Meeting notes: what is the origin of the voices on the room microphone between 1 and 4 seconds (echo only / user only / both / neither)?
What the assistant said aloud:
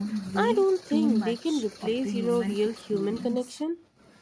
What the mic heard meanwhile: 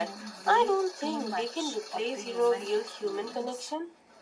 echo only